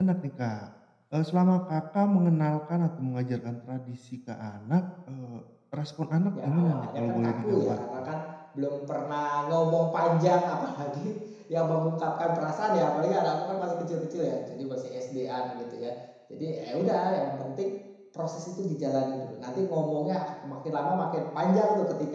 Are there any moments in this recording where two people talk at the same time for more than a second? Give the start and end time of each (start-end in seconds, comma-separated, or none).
6.4-8.1